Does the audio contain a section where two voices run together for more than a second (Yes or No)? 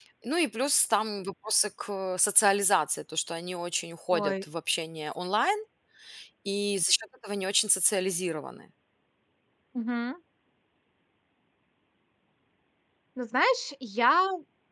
No